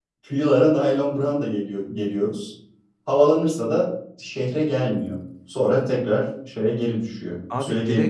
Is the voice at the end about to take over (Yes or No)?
Yes